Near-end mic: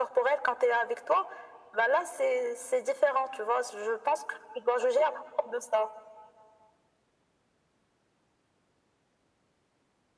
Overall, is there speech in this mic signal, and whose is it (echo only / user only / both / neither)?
echo only